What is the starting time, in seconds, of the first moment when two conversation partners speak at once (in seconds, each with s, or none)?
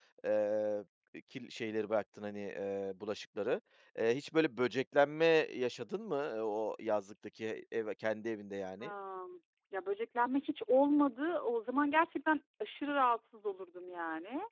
none